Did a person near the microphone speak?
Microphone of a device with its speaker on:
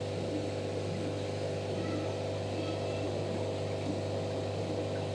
No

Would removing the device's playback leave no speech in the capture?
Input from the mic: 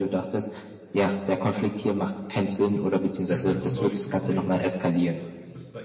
No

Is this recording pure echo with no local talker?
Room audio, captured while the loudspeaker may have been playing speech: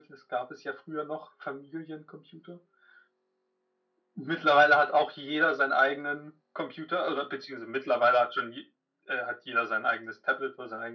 Yes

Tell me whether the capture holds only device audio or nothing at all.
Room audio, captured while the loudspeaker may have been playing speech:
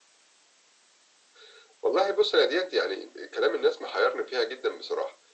Yes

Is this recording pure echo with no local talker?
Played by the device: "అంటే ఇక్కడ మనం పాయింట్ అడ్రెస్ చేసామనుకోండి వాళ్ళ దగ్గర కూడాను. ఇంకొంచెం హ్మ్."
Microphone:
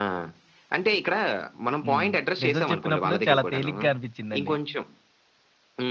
No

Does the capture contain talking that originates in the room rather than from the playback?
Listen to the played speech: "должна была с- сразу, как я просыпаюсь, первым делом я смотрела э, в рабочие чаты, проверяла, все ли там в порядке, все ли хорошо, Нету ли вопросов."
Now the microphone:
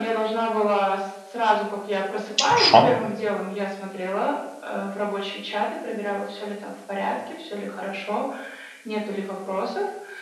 Yes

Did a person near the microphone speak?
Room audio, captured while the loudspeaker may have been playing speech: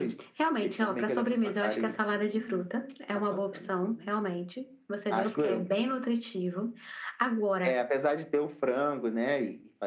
No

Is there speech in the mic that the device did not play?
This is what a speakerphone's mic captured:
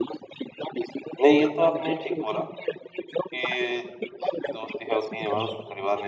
Yes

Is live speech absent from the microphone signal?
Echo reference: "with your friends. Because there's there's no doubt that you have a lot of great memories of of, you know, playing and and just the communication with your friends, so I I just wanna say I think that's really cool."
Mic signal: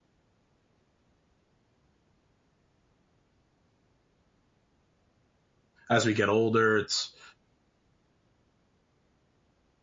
No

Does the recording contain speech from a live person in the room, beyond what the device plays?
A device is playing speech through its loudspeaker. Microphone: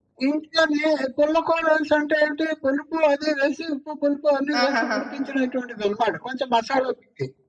Yes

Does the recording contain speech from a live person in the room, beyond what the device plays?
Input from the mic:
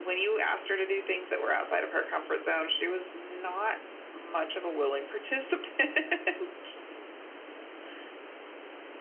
No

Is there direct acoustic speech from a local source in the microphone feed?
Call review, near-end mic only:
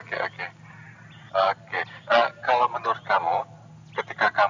No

